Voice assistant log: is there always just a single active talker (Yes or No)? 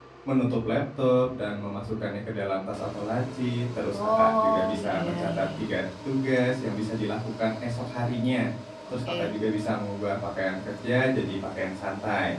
No